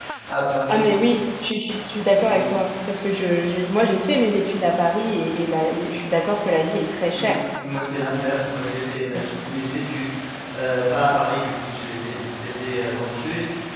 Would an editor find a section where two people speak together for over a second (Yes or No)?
No